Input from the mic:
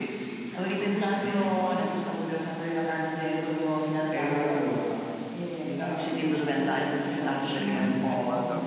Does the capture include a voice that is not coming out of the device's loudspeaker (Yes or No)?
Yes